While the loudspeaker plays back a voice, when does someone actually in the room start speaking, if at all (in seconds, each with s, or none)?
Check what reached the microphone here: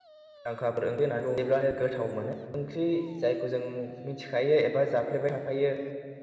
0.5 s